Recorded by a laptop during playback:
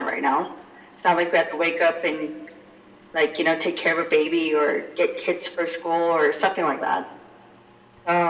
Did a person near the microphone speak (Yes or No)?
No